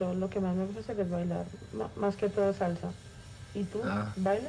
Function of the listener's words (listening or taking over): taking over